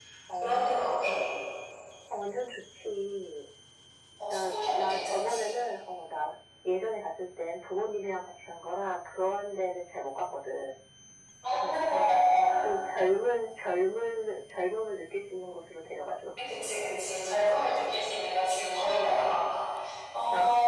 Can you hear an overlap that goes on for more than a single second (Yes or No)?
Yes